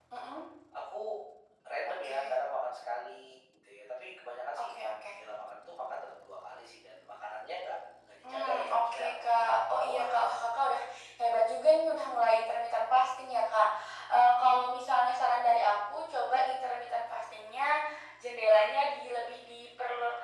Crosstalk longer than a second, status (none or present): present